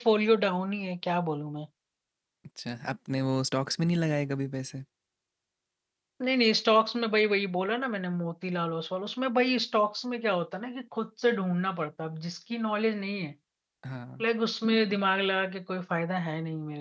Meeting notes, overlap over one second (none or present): none